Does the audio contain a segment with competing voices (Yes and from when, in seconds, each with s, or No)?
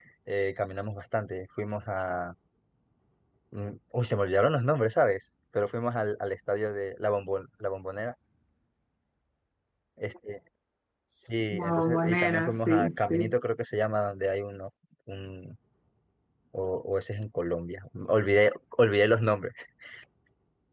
Yes, from 11.5 s